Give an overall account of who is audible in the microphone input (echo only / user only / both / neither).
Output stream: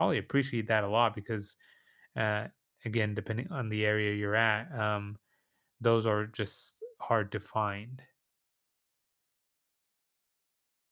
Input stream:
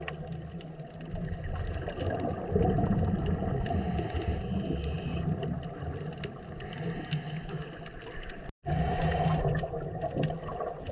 neither